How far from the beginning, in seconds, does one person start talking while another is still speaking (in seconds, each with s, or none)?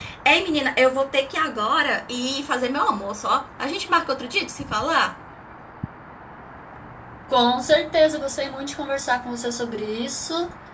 none